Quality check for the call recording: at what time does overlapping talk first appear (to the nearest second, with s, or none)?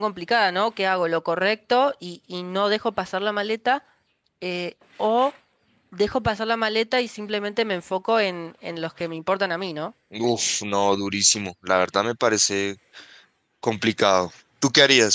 none